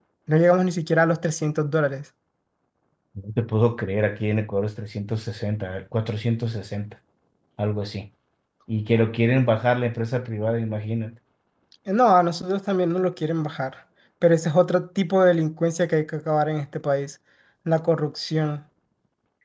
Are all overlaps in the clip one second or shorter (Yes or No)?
Yes